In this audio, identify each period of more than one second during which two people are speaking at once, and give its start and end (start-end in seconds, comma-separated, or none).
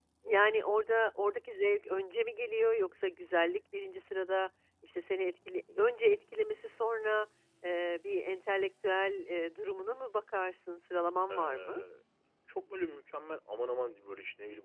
none